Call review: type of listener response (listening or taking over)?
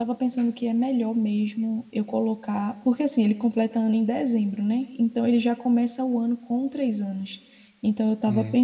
listening